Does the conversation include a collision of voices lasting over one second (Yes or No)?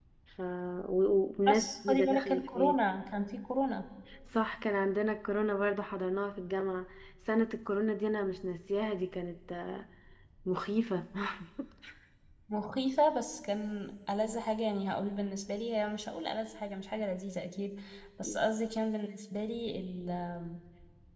Yes